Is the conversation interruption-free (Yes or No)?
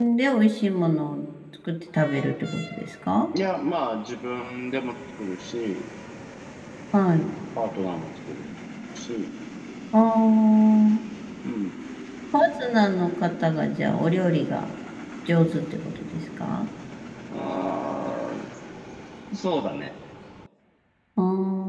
Yes